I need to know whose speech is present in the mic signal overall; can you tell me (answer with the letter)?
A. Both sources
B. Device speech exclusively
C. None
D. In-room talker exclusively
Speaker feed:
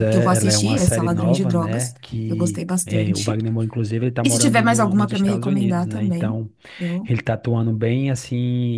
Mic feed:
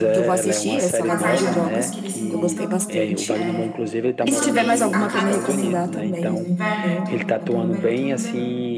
A